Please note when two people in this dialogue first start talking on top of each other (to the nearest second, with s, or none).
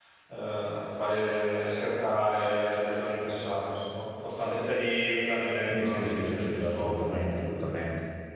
6 s